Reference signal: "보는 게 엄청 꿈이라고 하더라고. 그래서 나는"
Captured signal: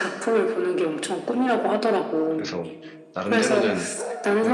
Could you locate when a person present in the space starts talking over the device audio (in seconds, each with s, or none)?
2.3 s